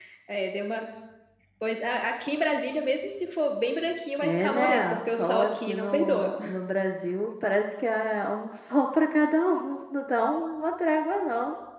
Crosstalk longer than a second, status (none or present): present